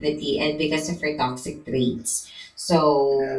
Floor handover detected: No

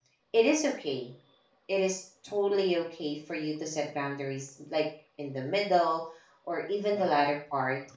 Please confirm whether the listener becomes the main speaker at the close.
No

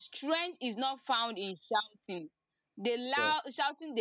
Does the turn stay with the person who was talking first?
Yes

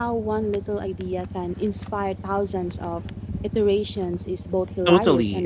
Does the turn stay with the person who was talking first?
No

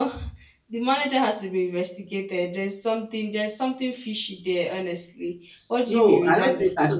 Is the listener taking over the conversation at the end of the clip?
Yes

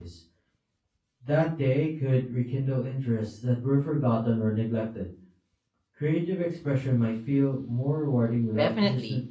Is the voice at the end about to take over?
Yes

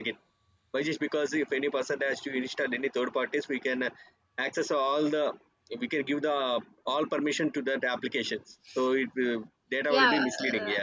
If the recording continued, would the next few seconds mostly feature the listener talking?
Yes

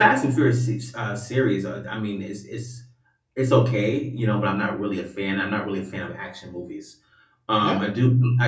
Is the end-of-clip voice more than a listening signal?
No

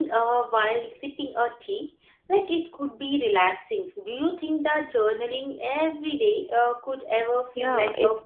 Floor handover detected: Yes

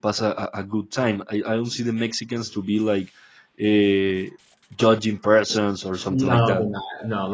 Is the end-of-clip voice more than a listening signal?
Yes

